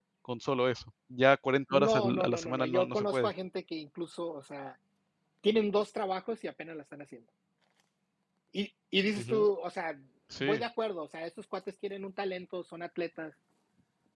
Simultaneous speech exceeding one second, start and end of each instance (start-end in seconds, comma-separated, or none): 1.8-3.3